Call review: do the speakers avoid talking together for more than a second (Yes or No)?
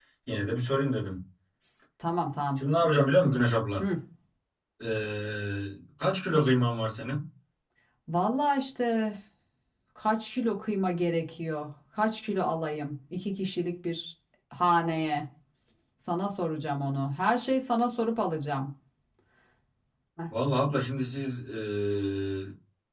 Yes